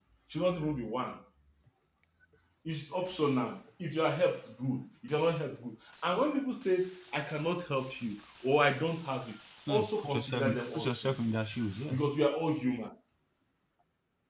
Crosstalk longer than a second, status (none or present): present